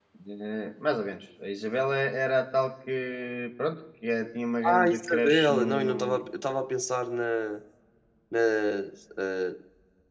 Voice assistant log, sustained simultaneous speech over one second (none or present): present